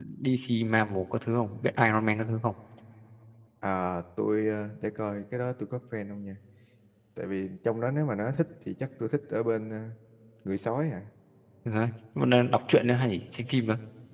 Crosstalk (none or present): none